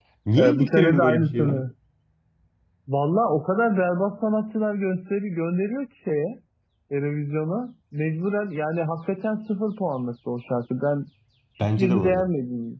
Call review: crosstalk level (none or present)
present